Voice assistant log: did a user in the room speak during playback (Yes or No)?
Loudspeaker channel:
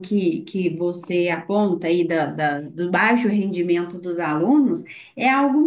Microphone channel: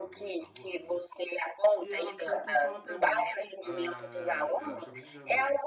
Yes